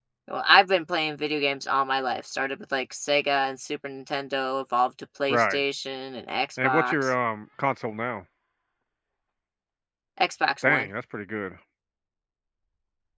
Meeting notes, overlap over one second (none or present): none